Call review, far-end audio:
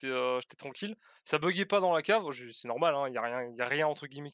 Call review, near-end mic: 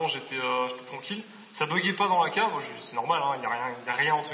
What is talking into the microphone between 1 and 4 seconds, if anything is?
echo only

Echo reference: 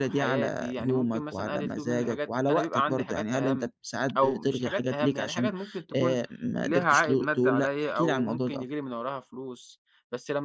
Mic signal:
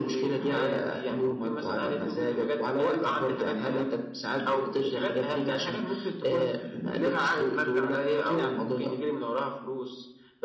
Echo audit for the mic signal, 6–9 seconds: echo only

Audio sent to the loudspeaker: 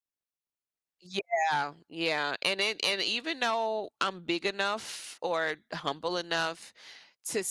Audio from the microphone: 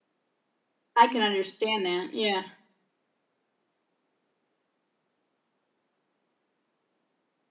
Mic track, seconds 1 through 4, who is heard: user only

